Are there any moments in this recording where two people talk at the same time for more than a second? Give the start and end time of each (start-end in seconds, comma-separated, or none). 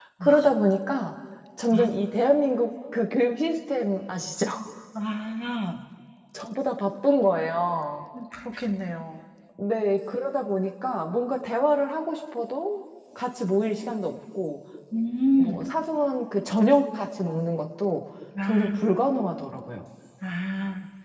none